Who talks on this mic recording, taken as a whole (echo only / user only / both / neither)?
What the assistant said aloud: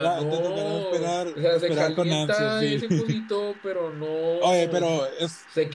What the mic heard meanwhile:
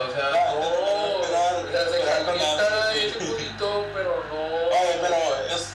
echo only